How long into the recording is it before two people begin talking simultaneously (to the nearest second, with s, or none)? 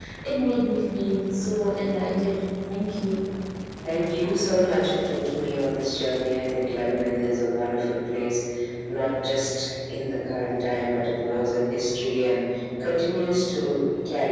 none